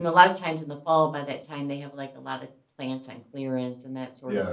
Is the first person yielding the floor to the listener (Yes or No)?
Yes